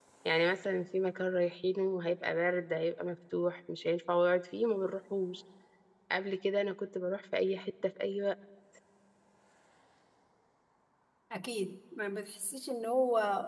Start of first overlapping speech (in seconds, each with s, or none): none